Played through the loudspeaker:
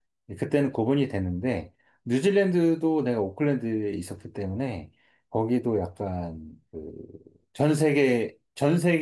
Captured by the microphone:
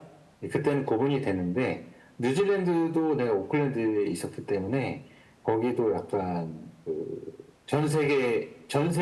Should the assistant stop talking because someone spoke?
No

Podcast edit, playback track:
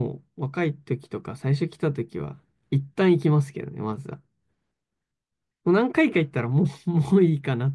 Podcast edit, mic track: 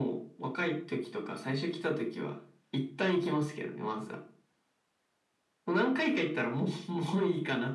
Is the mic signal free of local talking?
Yes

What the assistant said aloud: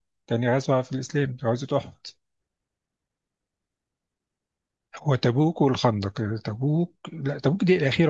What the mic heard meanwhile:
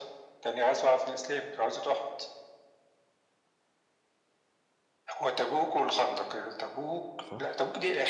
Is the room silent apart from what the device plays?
No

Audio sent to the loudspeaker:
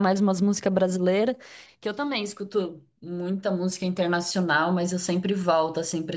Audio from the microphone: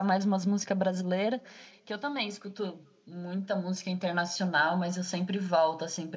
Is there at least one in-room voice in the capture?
No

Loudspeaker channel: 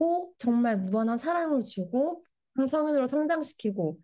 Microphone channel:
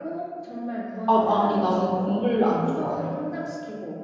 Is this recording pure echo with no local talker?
No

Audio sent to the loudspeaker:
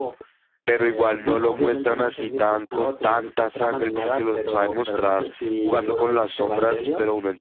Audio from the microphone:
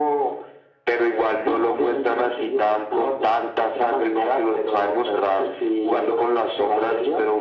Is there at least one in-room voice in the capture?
No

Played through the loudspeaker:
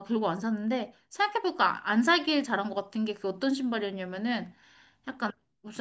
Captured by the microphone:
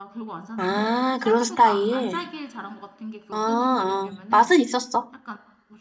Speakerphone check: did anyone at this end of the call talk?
Yes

